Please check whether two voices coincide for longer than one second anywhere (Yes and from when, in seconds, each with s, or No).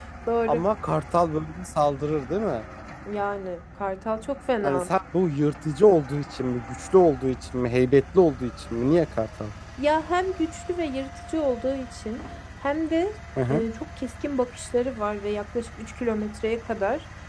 No